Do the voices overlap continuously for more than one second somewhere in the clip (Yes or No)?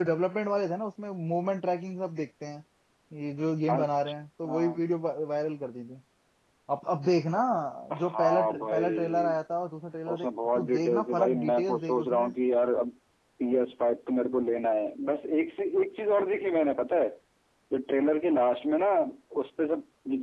Yes